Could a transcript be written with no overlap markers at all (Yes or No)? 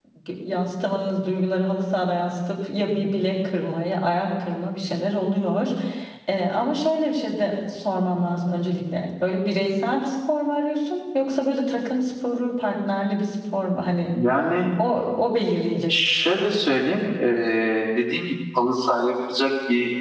Yes